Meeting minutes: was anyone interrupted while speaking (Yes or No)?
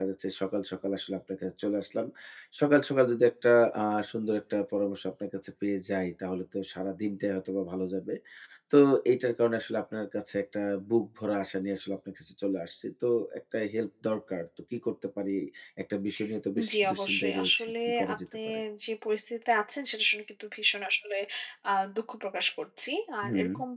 Yes